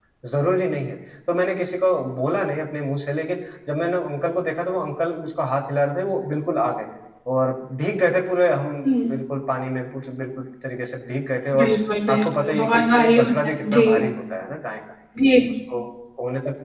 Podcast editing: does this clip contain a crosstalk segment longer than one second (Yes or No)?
Yes